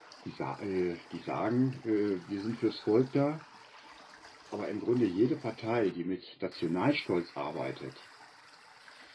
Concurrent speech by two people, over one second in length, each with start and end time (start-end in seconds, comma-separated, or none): none